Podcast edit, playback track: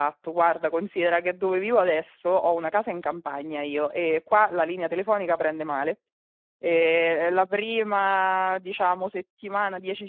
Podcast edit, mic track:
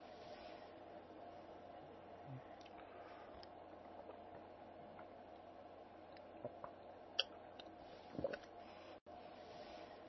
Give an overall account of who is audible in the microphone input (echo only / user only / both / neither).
neither